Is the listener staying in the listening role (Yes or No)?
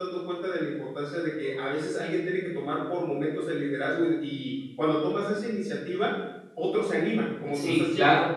No